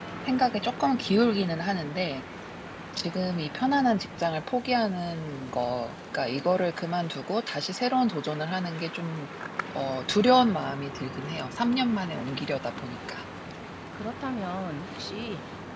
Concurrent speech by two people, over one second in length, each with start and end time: none

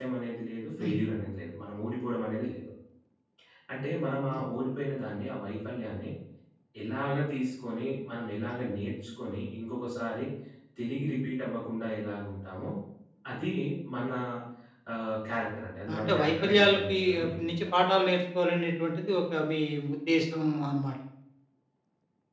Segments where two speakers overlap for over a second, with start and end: 15.9-17.7

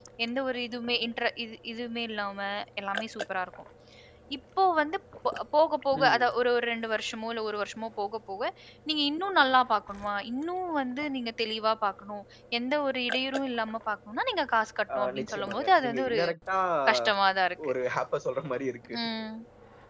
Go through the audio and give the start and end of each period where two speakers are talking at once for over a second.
14.9-16.2

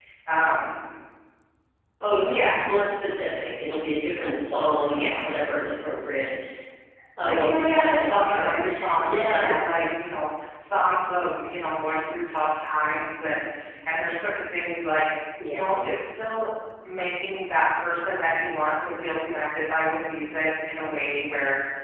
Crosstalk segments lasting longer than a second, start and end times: 7.2-9.5

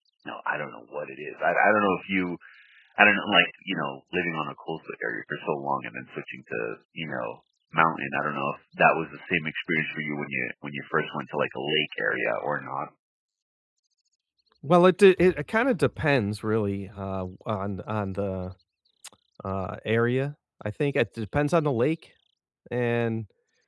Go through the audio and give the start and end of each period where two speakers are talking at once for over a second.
none

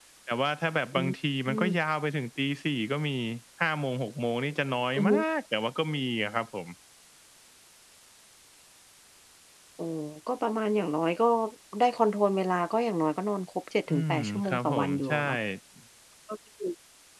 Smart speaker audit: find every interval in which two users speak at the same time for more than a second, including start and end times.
13.9-15.2

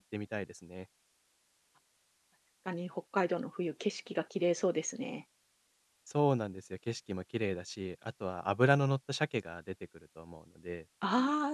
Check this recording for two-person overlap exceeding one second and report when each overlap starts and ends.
none

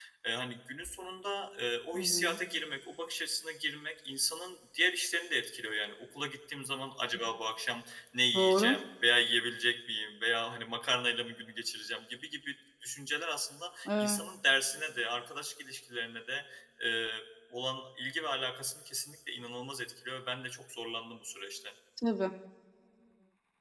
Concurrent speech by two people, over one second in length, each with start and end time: none

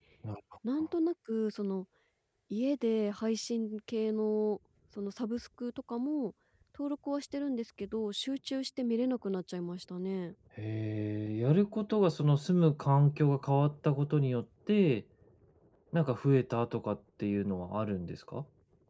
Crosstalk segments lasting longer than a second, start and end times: none

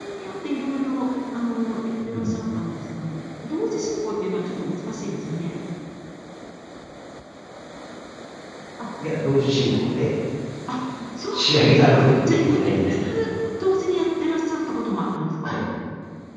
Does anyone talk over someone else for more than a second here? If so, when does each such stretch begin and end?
11.3-12.6

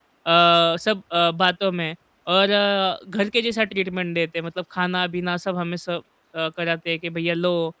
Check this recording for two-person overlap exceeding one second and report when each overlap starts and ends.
none

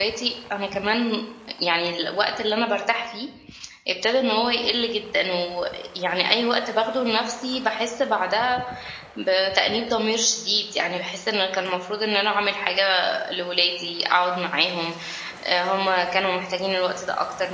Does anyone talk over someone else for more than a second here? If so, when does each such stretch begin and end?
none

